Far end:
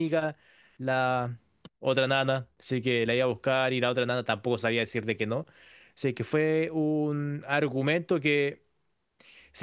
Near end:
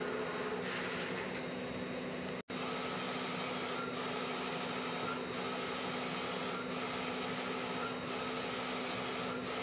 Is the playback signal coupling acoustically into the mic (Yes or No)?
No